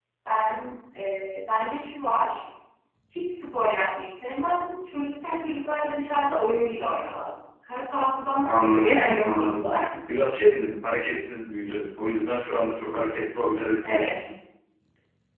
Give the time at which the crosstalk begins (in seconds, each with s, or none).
8.4 s